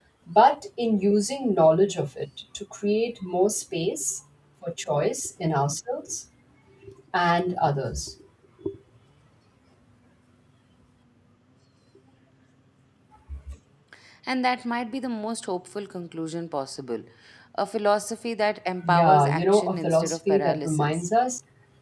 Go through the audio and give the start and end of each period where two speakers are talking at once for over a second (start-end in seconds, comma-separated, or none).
18.9-21.1